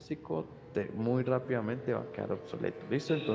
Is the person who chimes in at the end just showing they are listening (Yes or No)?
No